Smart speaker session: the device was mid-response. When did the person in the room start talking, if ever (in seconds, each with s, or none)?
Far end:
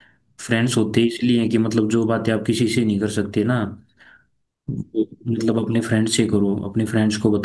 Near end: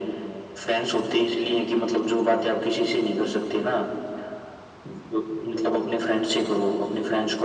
none